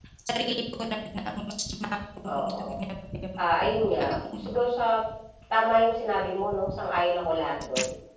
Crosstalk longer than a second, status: none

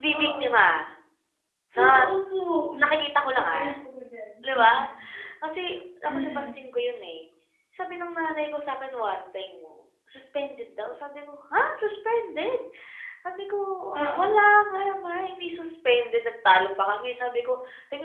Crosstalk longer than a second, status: none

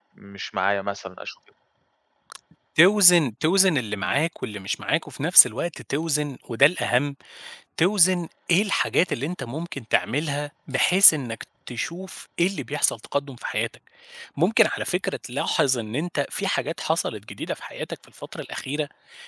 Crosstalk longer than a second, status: none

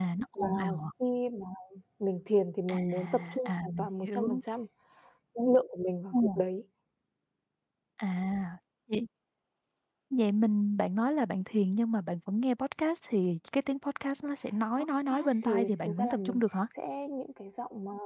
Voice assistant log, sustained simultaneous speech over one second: present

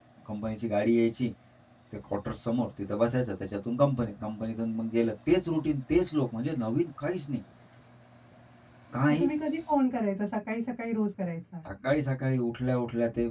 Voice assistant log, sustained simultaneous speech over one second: none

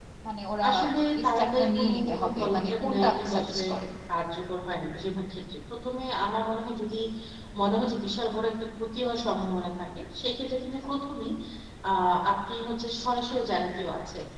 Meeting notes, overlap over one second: present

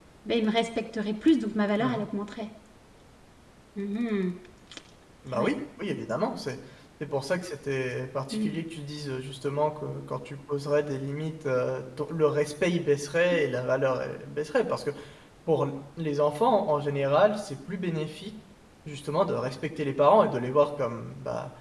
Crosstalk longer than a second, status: none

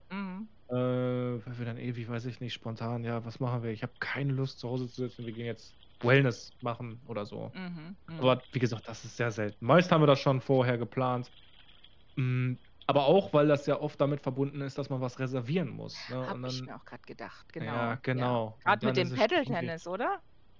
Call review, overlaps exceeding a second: present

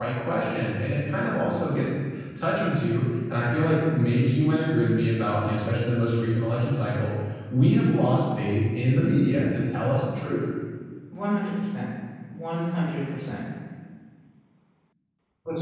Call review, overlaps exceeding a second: none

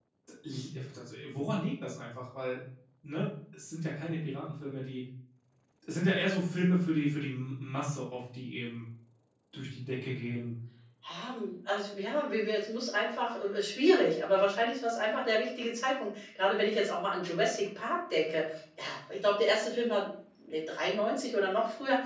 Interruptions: none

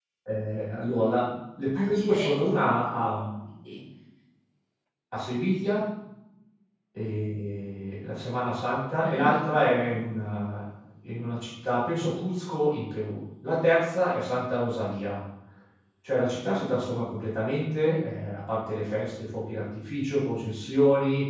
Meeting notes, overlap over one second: present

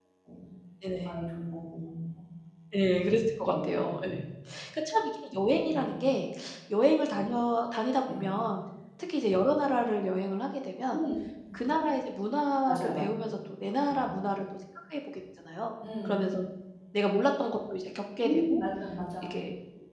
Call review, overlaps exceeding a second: none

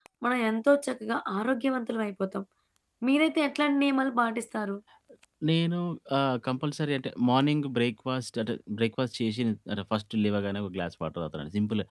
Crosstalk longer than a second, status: none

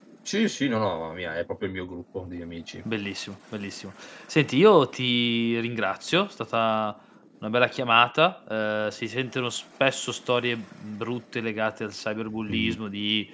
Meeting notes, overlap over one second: none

